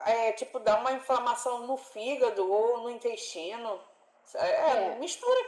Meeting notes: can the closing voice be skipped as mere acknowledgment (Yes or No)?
Yes